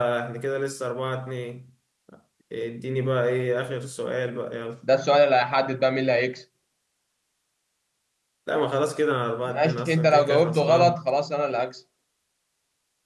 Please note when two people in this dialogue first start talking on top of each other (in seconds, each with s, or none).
9.4 s